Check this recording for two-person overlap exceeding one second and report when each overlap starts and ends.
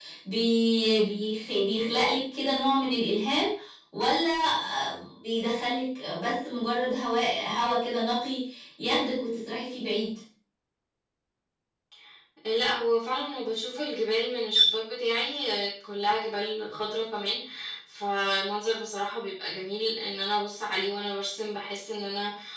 none

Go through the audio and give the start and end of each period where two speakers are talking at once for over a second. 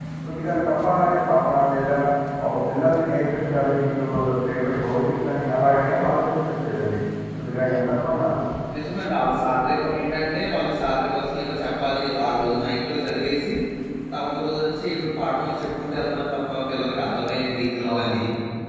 none

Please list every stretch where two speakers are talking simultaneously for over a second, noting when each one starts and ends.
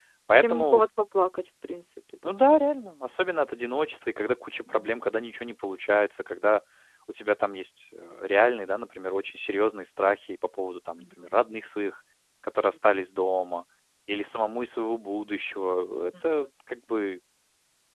none

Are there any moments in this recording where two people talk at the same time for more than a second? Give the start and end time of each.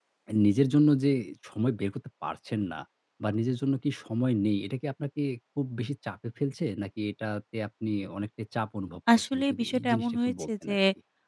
9.2-10.7

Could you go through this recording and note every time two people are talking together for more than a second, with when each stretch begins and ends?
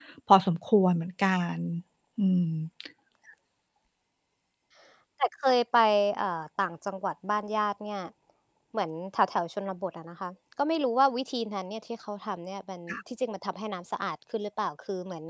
none

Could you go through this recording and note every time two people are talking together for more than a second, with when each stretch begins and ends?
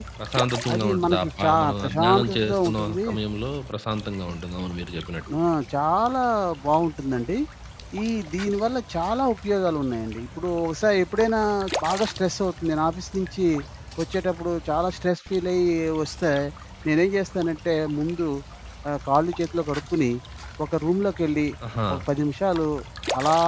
0.7-3.1

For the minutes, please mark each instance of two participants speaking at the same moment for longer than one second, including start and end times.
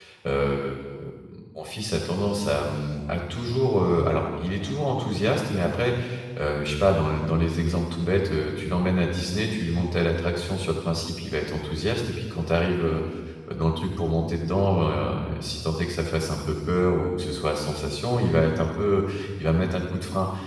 none

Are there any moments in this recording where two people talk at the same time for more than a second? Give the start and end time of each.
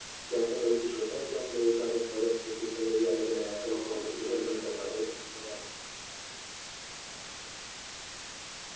3.7-5.0

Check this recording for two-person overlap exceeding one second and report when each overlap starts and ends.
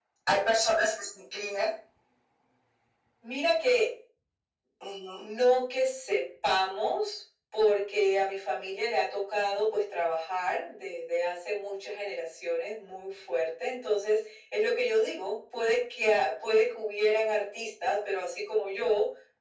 none

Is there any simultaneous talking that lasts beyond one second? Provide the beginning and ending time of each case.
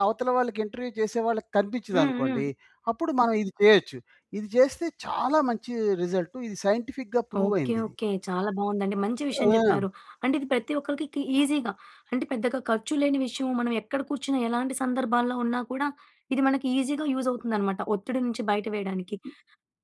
none

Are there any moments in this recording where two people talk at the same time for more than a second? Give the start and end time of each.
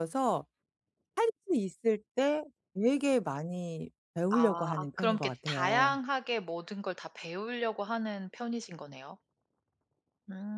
4.3-6.0

